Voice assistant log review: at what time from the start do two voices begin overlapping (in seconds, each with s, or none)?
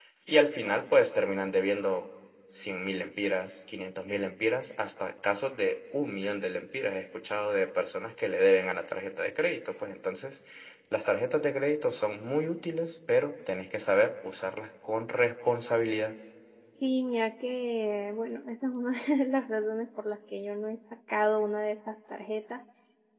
none